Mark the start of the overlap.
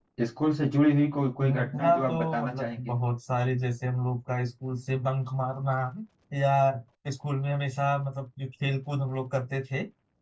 1.4 s

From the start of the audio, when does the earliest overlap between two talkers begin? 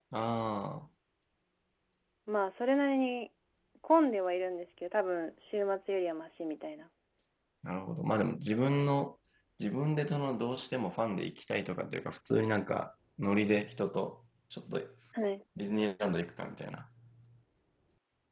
none

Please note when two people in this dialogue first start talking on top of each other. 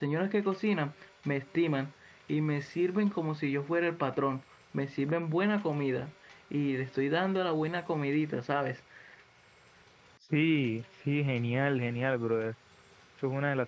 none

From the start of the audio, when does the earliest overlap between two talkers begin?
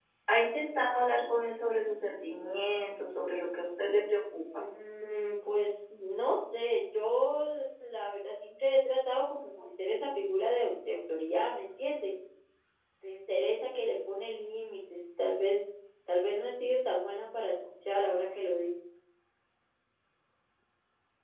none

